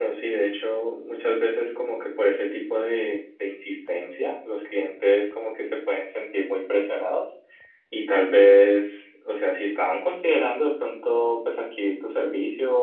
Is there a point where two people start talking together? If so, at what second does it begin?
none

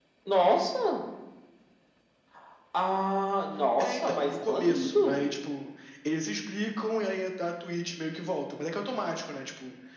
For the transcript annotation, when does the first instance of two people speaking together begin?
4 s

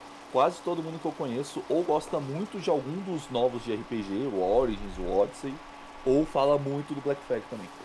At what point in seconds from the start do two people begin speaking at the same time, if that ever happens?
none

